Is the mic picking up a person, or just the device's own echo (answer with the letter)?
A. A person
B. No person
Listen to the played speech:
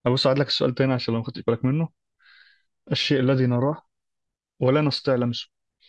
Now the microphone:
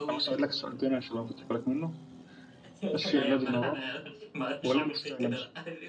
A